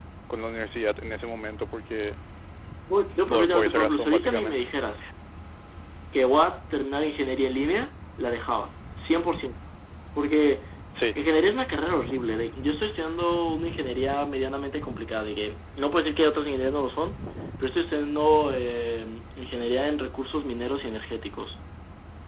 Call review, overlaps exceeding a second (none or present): present